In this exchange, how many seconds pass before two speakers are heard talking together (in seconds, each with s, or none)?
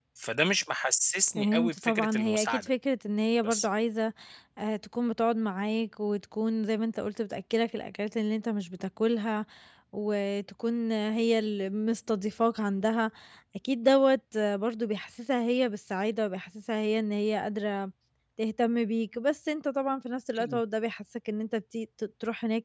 1.4 s